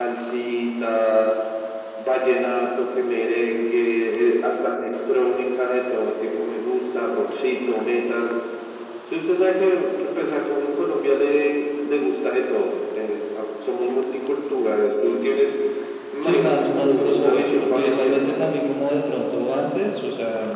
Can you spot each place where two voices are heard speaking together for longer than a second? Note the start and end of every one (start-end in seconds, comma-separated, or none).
16.2-18.3